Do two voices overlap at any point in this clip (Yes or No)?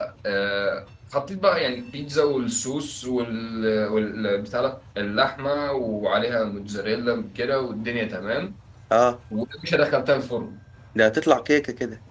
No